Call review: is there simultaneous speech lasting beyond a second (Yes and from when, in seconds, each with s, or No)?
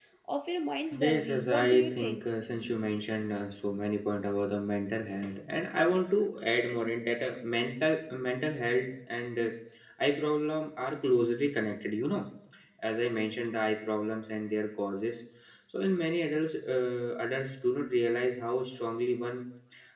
Yes, from 1.0 s